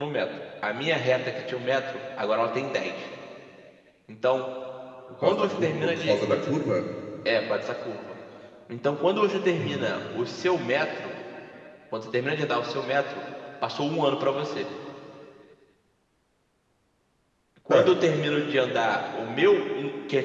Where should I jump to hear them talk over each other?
5.2 s

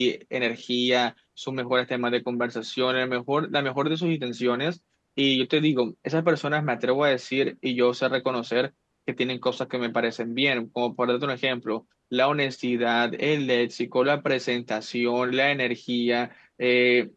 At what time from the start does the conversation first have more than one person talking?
none

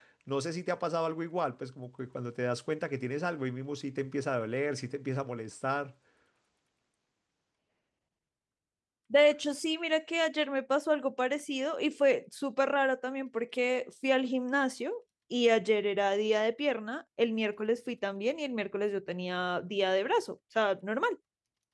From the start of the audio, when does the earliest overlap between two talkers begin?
none

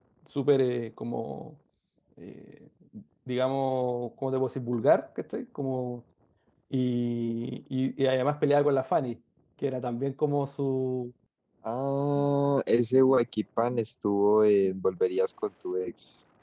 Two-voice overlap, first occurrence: none

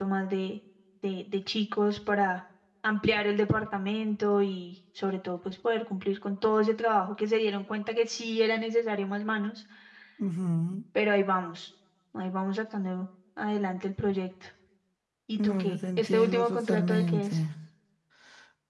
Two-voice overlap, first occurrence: 15.4 s

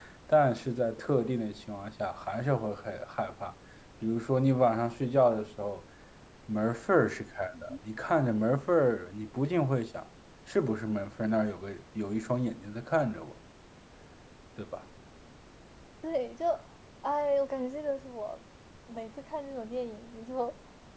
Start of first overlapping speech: none

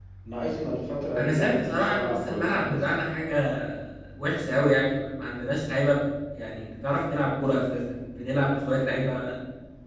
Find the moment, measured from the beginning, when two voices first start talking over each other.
1.2 s

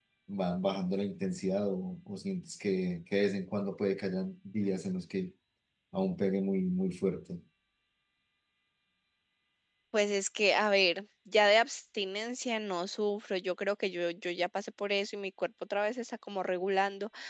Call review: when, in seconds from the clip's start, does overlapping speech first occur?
none

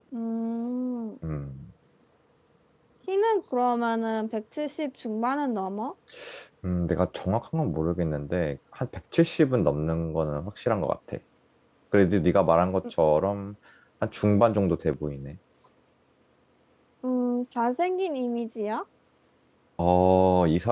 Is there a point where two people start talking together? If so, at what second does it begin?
none

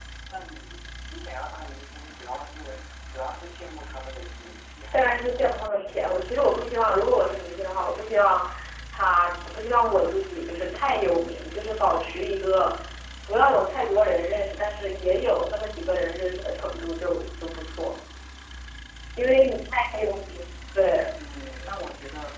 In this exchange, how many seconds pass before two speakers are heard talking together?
4.9 s

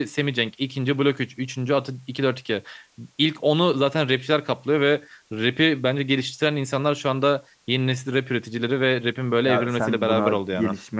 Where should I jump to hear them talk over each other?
9.5 s

